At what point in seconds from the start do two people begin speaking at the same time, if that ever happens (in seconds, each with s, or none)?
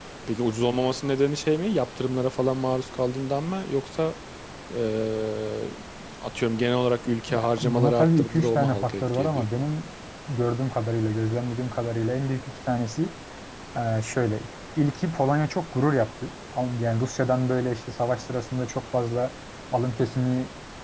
7.3 s